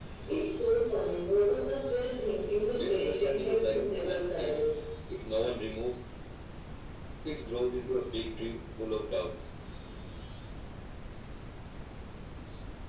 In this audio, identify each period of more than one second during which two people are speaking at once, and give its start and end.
2.7-4.6

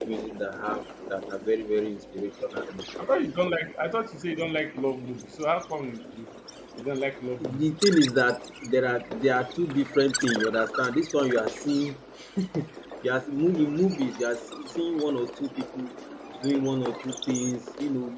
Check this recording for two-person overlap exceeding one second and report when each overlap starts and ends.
none

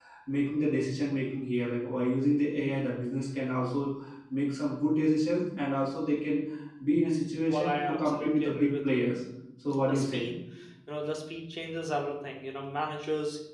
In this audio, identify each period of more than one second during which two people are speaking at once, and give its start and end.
7.5-9.1

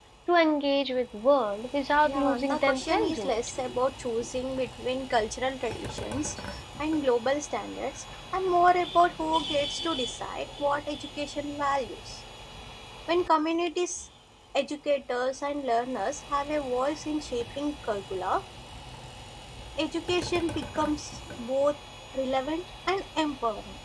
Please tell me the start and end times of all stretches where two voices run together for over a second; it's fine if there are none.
2.0-3.4

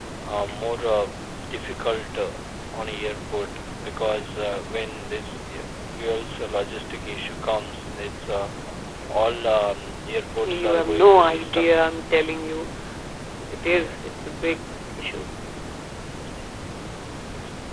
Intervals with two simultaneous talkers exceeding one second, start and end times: 10.4-11.7

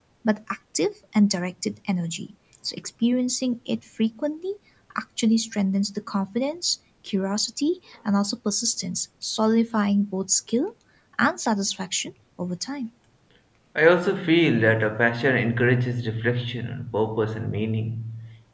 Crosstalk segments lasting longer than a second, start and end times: none

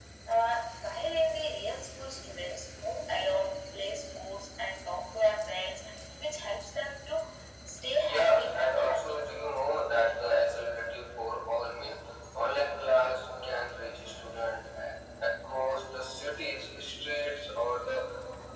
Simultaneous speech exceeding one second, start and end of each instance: 8.0-9.2

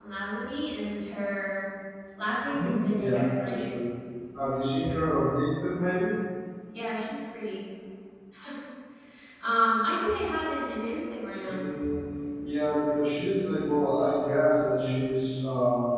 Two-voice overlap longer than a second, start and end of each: 2.4-3.6

